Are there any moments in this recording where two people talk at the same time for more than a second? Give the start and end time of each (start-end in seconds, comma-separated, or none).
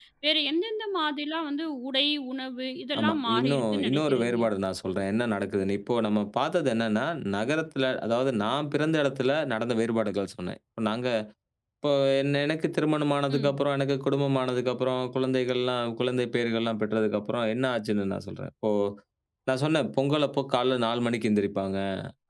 3.0-4.4